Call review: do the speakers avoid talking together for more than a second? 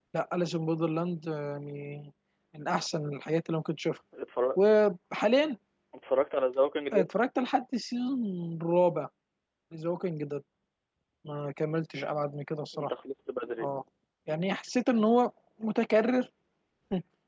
Yes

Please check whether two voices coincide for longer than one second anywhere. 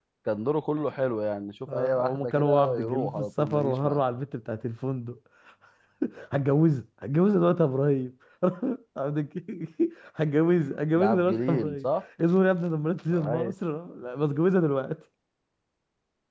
Yes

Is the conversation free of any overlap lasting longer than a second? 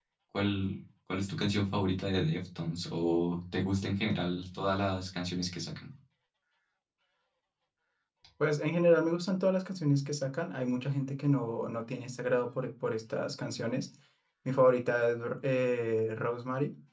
Yes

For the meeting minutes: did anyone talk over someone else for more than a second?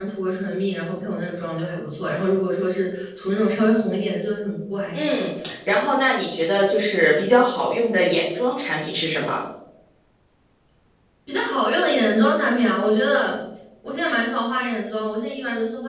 No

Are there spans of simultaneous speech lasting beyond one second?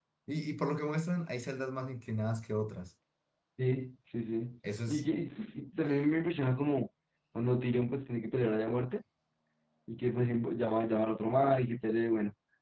No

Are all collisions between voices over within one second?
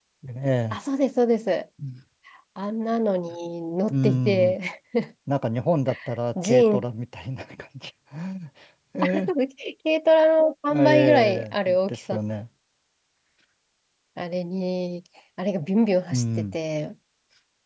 No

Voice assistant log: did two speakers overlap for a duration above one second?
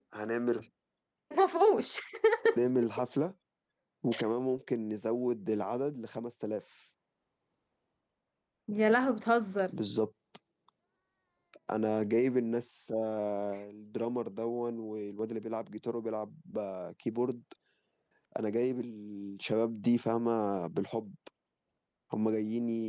No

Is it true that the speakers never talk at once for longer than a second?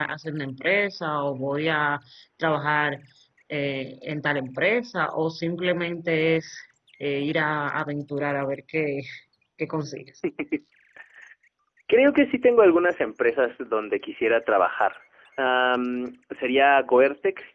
Yes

